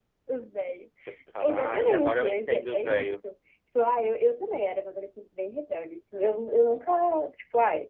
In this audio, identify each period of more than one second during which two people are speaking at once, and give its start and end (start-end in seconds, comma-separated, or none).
1.4-3.1